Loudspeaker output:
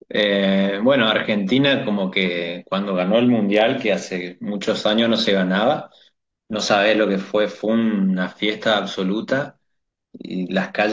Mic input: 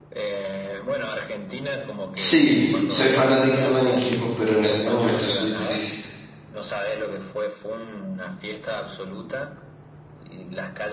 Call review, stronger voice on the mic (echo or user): user